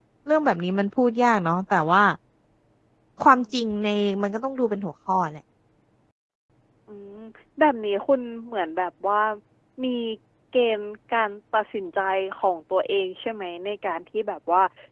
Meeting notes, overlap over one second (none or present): none